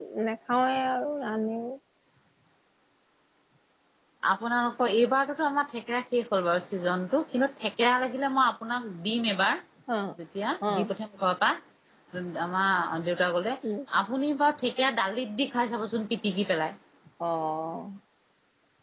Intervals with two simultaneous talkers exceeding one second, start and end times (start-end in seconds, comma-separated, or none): none